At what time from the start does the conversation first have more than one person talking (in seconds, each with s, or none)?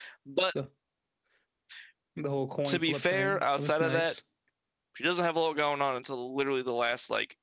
2.6 s